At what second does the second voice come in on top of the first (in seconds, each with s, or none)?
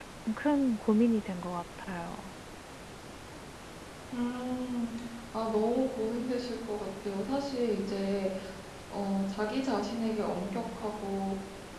none